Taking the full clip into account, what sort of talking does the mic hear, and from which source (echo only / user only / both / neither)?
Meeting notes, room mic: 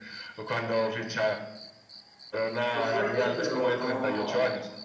both